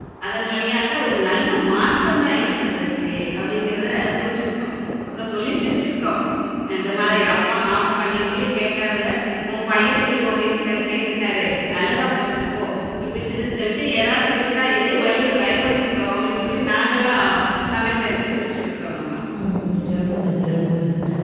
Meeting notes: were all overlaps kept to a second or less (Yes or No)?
Yes